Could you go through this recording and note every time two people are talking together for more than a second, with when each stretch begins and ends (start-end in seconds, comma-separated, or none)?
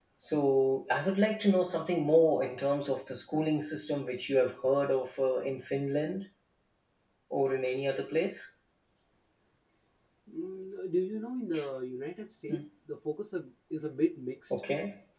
none